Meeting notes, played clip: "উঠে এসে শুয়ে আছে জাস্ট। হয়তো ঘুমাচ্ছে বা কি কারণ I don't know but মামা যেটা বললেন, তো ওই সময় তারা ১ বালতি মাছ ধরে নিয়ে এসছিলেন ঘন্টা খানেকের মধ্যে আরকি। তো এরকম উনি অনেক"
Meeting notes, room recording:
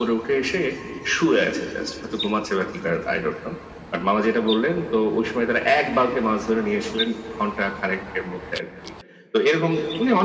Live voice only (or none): none